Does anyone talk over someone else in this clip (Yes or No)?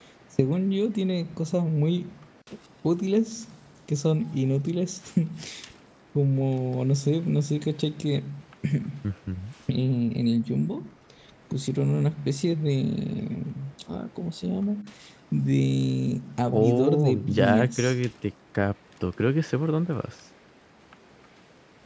Yes